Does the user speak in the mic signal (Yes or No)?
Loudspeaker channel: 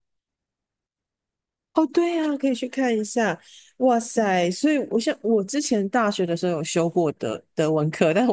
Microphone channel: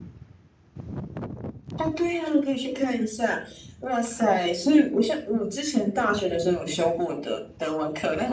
No